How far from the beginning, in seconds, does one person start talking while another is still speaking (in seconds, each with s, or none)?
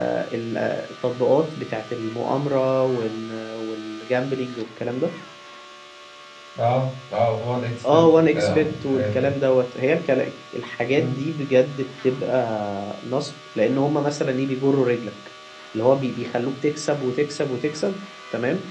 7.9 s